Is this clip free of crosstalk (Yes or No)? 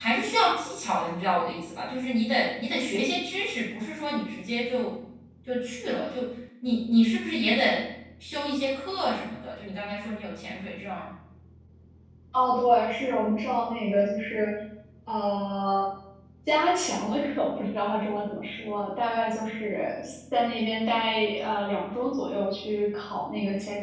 Yes